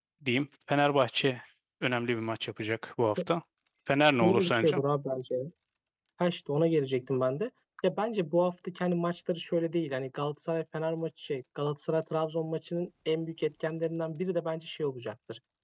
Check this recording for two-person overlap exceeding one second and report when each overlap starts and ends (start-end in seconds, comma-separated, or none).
none